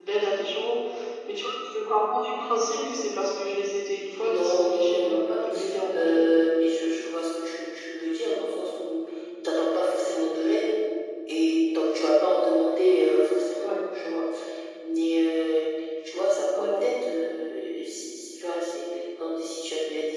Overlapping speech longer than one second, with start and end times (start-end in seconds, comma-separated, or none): 4.2-5.5